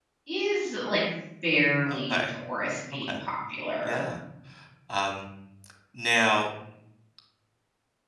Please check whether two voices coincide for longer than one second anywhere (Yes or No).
No